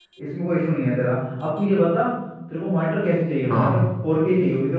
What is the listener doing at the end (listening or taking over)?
listening